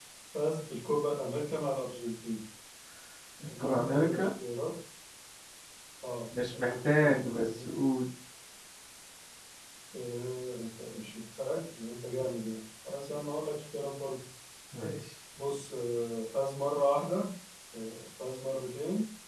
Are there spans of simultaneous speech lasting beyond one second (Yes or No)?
Yes